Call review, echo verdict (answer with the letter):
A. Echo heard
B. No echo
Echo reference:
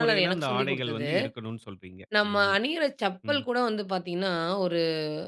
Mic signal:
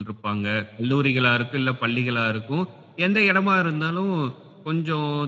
B